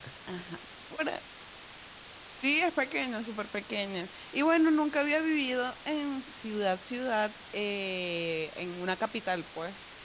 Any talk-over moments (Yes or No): No